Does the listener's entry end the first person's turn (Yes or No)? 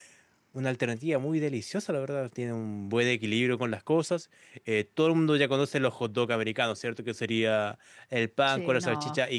No